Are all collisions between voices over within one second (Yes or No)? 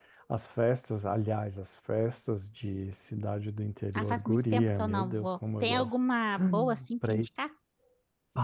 No